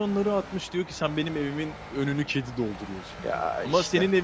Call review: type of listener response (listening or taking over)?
listening